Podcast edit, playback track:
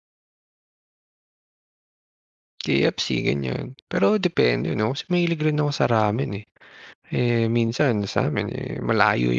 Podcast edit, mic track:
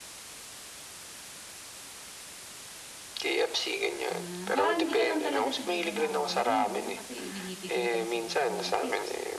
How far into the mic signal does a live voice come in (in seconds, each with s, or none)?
4.0 s